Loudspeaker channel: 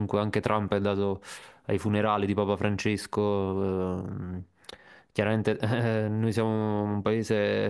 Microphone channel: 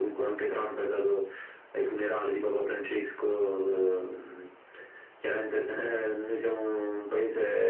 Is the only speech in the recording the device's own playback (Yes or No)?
Yes